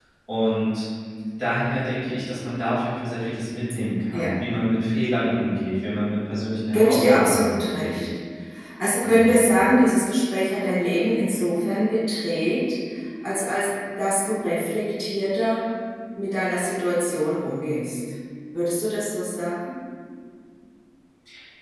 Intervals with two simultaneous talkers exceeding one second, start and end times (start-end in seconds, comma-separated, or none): 6.7-8.1